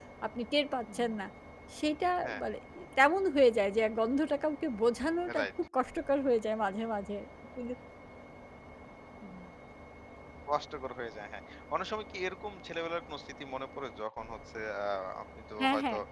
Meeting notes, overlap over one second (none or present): none